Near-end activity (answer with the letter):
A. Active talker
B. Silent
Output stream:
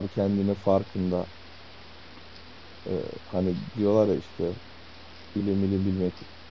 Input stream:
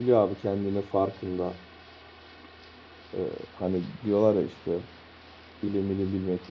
B